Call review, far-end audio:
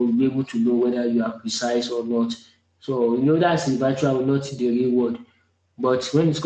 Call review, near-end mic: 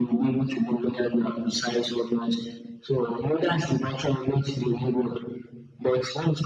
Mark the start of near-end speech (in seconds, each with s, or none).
none